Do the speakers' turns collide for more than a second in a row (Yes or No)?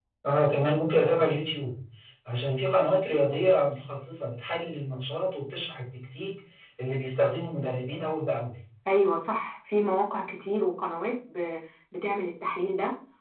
No